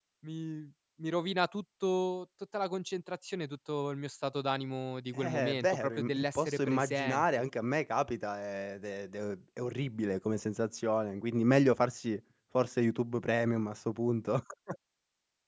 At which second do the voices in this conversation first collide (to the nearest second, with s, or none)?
5 s